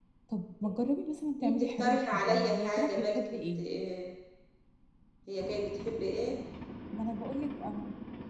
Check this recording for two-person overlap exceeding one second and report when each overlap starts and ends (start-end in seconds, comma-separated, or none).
1.4-3.6